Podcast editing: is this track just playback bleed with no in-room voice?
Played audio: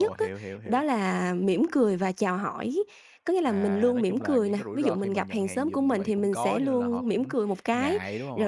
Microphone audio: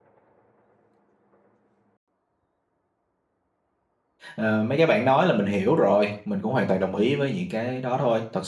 No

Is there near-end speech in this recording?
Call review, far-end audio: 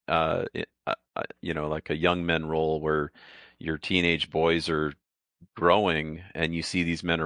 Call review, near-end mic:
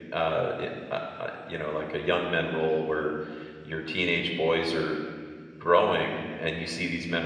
No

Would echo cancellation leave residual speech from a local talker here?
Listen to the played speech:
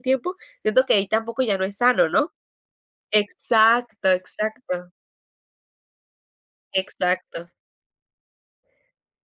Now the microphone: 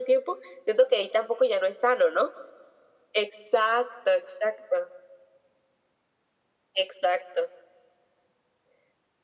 No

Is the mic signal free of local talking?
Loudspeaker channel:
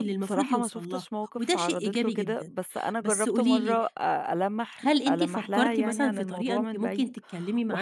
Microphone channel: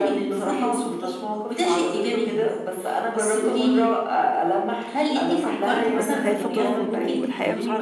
No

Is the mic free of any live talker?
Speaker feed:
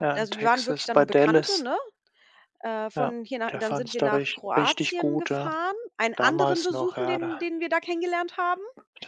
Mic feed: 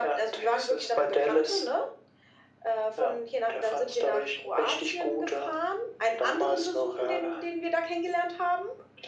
Yes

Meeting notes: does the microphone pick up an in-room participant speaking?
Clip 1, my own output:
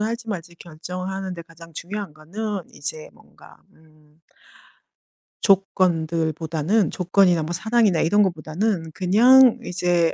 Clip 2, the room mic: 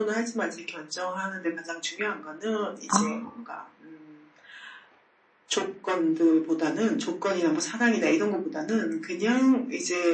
Yes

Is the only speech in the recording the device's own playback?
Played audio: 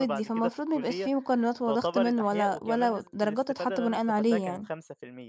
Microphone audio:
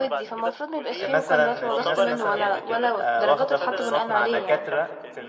No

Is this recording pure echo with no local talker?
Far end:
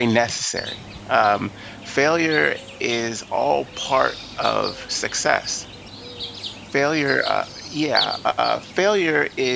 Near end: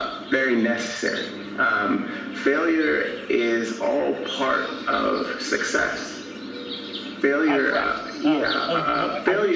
No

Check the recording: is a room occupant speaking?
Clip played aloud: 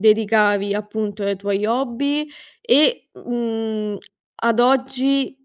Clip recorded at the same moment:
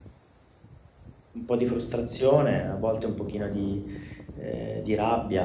Yes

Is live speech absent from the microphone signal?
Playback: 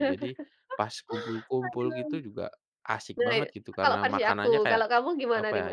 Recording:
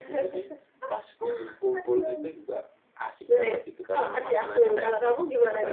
Yes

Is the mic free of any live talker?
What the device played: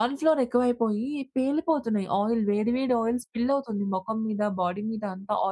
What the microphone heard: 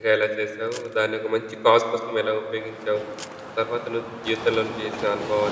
No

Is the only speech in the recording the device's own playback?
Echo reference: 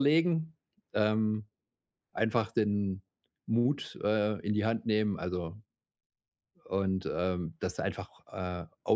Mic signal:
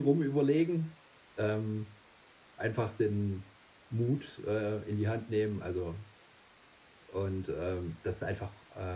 Yes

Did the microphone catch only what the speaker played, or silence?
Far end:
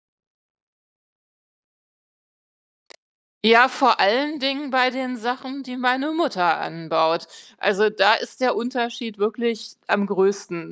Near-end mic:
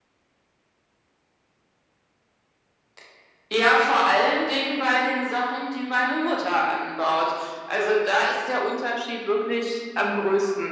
Yes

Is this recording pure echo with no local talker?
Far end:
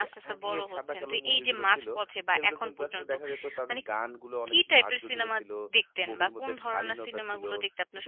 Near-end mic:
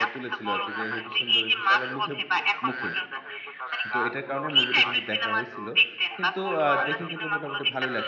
No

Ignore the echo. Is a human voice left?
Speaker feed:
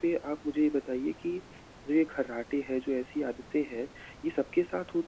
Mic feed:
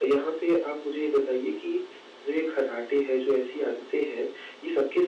No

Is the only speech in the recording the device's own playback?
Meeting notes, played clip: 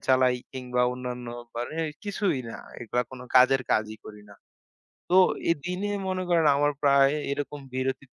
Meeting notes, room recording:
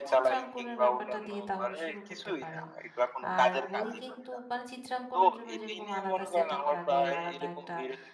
No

